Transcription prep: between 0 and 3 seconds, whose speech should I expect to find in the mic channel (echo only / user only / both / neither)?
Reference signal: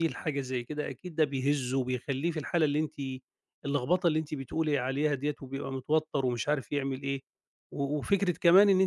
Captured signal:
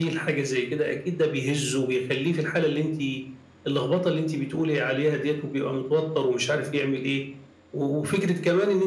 echo only